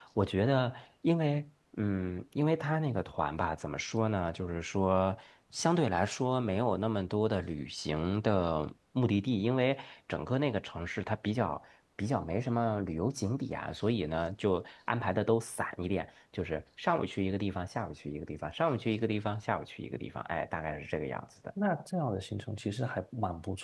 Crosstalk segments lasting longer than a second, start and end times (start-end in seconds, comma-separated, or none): none